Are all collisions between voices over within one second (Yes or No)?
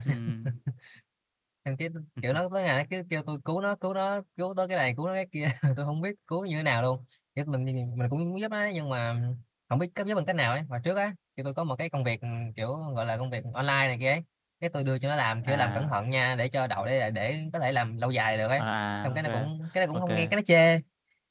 Yes